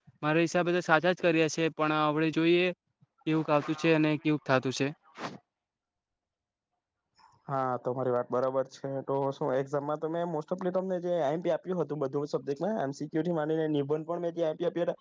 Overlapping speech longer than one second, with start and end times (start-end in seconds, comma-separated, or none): none